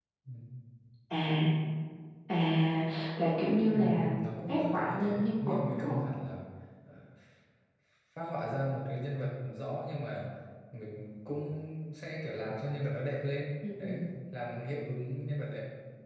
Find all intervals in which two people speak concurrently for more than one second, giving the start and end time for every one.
4.5-6.0

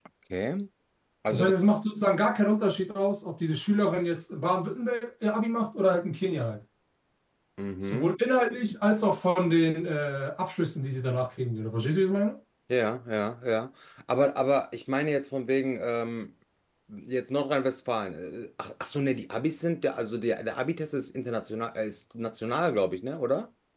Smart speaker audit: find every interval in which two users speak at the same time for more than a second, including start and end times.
none

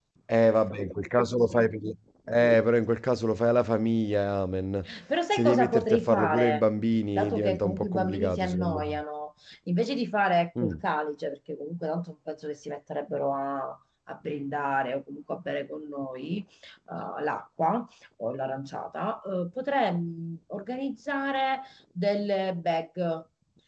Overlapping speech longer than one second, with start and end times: 5.3-6.6, 7.2-9.0

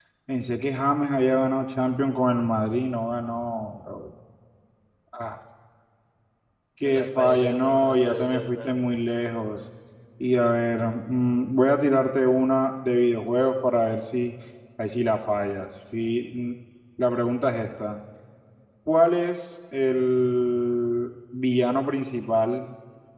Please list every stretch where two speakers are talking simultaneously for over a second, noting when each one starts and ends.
6.8-8.7

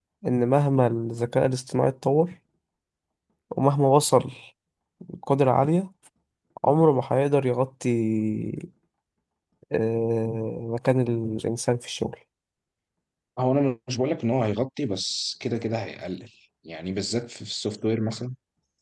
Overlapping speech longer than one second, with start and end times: none

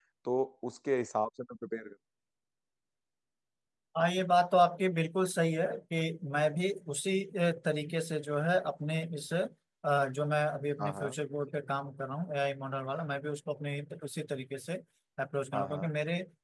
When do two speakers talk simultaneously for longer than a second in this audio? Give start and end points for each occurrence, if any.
none

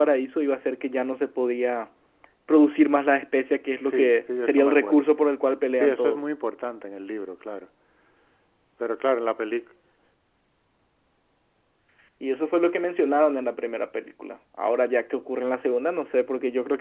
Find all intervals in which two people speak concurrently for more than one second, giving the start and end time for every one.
3.9-5.3

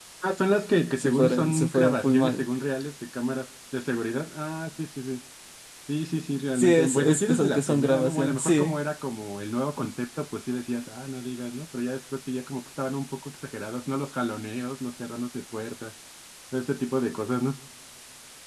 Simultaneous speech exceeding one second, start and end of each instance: 1.0-2.4, 6.5-8.7

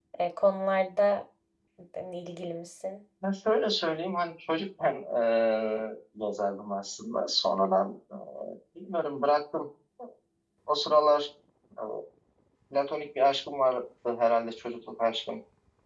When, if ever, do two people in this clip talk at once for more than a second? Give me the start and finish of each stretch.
none

